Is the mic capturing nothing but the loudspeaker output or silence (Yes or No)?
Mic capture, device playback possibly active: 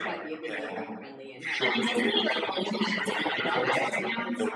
No